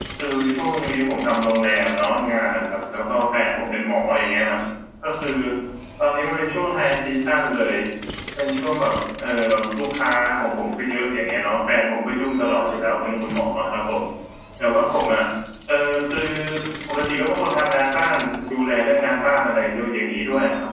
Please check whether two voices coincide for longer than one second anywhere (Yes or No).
No